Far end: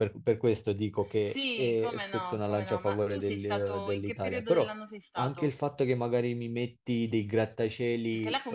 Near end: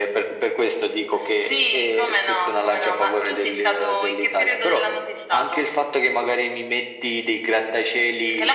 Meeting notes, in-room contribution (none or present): none